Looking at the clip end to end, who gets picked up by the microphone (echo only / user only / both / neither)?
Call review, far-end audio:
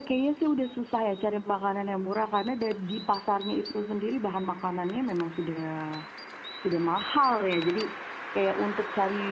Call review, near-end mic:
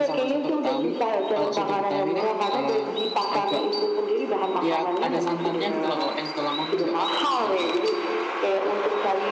both